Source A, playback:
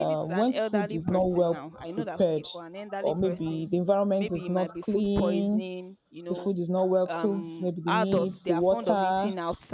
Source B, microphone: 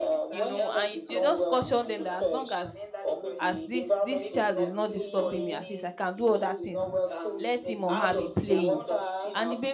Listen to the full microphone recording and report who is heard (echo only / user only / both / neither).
both